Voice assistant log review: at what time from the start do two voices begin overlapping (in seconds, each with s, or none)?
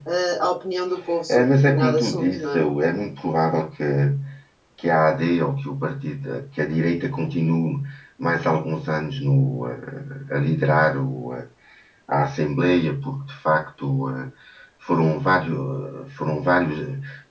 1.3 s